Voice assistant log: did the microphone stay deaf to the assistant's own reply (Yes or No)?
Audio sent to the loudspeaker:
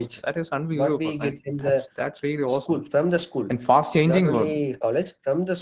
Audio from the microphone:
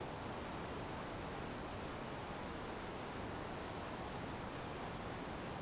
Yes